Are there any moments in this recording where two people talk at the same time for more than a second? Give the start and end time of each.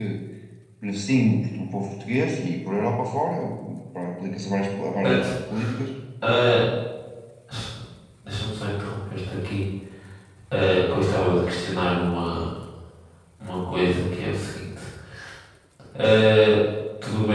none

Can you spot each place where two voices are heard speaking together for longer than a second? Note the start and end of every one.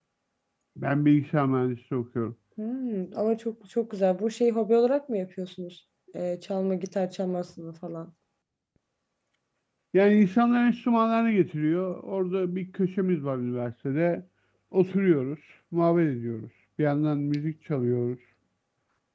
none

